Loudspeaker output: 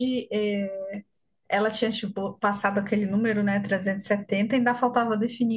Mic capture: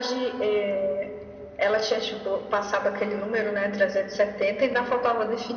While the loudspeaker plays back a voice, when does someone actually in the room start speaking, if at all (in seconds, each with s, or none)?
none